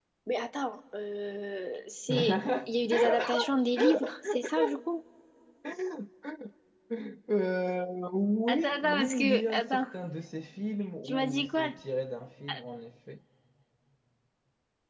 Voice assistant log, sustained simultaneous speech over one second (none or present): present